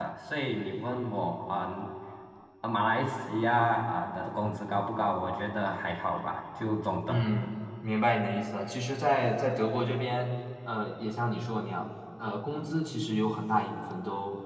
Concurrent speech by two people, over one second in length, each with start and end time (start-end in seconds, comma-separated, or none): none